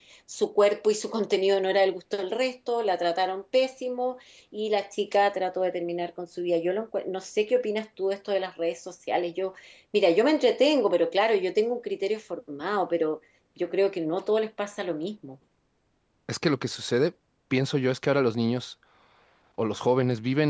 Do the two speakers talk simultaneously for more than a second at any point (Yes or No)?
No